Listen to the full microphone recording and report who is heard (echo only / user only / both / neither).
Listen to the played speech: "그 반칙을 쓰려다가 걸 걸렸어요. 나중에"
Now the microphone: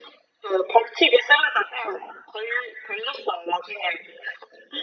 echo only